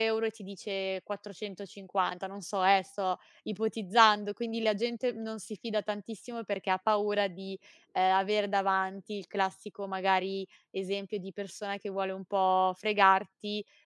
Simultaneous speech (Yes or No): No